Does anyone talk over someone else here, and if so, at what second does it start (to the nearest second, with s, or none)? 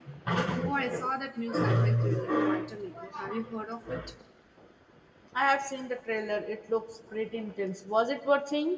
none